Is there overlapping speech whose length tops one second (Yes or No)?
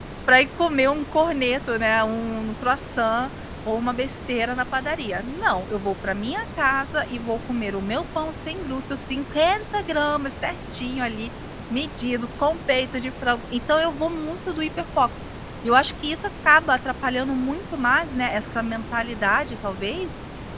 No